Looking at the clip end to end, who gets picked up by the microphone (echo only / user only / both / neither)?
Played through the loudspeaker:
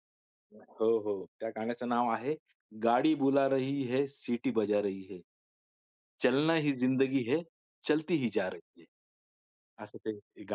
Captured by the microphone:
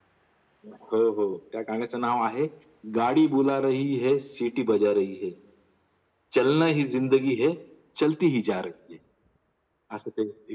echo only